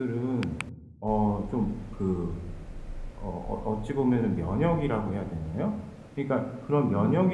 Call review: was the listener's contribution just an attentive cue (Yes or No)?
Yes